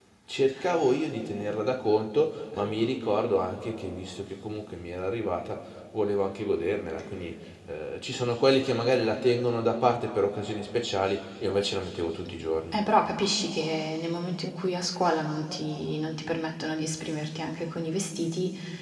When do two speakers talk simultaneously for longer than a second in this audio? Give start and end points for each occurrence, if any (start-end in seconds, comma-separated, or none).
none